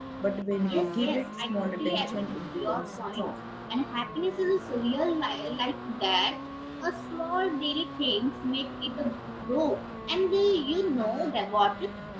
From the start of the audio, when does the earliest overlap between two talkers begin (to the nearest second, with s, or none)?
1 s